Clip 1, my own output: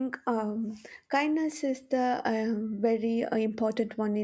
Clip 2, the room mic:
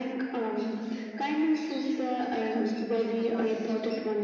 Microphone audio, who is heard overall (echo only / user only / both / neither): both